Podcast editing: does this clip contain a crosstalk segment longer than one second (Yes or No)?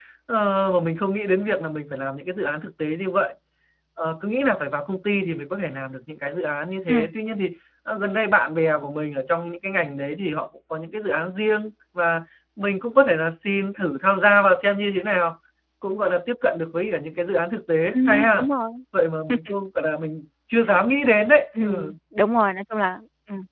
No